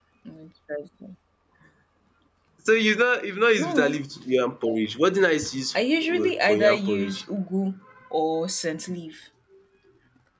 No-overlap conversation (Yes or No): No